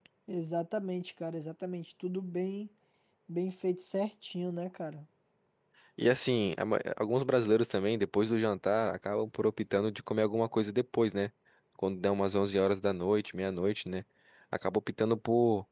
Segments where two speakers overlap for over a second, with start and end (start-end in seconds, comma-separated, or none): none